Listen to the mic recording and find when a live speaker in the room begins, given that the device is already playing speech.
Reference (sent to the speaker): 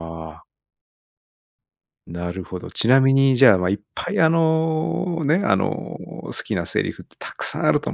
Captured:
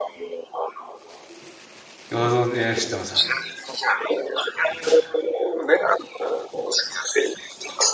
2 s

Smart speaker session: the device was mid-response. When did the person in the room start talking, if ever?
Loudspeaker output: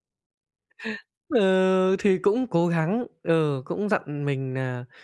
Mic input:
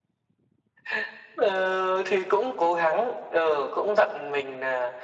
none

